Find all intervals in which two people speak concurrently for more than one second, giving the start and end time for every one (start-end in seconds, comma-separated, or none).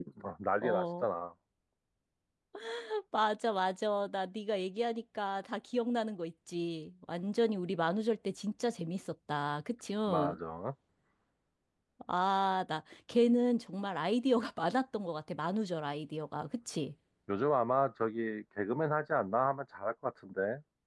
none